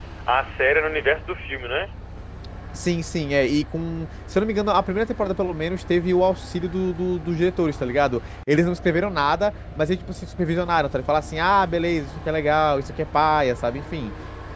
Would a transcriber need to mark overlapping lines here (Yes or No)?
No